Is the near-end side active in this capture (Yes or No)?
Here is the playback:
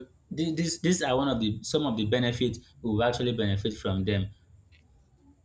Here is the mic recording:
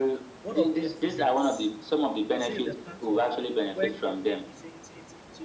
Yes